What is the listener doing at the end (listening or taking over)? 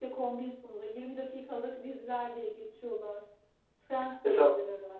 taking over